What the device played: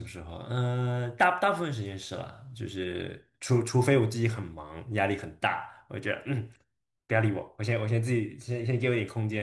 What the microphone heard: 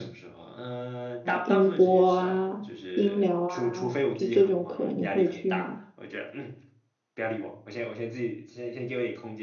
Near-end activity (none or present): present